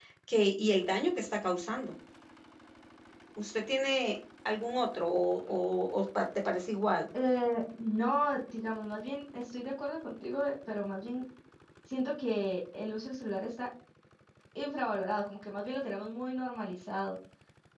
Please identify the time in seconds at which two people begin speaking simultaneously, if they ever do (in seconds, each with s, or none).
none